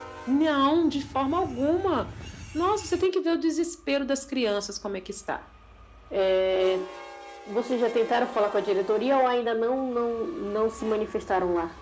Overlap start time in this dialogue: none

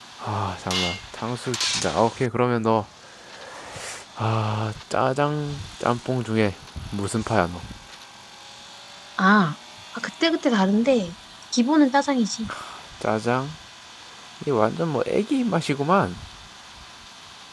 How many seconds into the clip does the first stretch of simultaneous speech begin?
none

